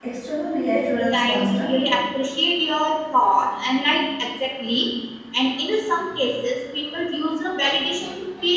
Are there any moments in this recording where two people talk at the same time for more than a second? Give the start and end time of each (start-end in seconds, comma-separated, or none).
0.7-2.0